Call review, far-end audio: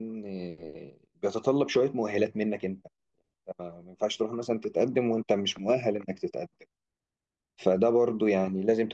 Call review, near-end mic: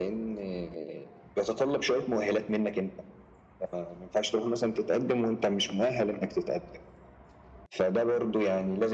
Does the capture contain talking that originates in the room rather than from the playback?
No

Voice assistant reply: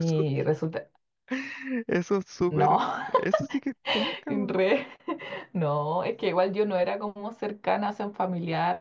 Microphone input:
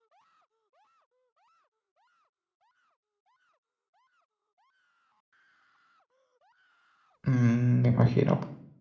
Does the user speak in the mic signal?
Yes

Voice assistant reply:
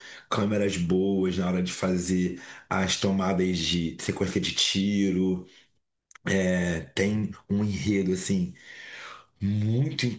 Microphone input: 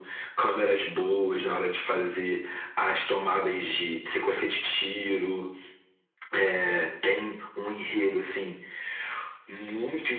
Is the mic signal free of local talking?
Yes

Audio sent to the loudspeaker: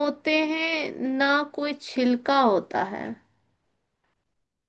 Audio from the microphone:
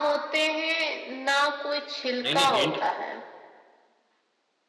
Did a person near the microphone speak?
Yes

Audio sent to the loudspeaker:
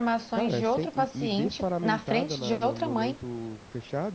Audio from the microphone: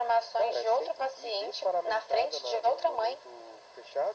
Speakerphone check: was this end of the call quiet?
Yes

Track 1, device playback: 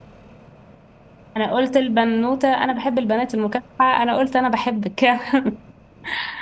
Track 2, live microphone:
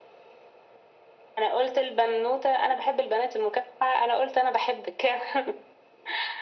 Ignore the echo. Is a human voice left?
No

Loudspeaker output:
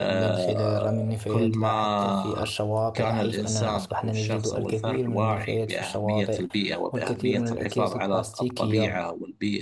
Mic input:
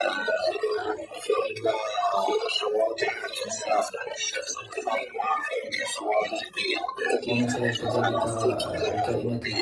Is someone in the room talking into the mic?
Yes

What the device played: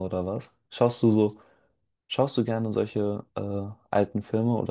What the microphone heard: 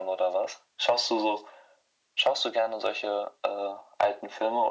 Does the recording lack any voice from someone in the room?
Yes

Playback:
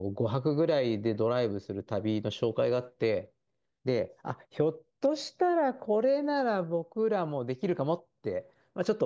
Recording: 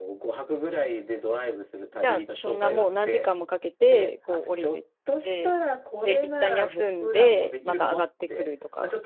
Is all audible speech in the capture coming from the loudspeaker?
No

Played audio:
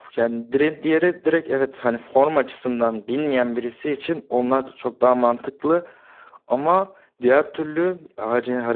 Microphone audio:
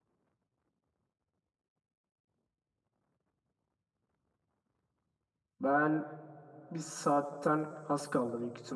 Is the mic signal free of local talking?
No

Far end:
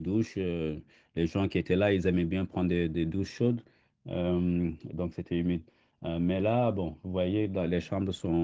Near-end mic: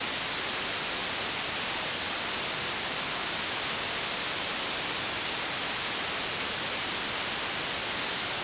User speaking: No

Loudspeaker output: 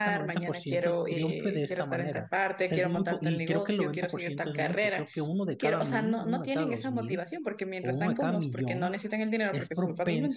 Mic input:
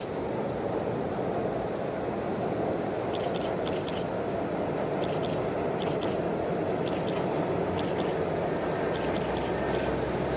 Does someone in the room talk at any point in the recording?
No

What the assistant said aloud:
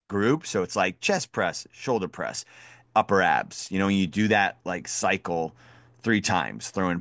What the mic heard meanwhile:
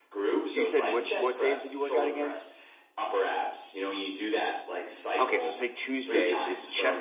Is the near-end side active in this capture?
Yes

